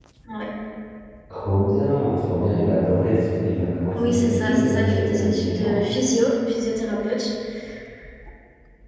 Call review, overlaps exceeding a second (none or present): present